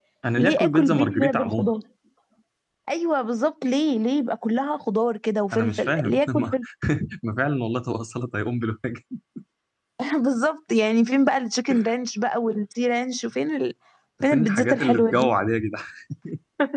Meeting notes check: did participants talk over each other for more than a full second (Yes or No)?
Yes